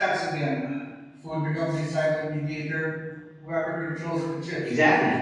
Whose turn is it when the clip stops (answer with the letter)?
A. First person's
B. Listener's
B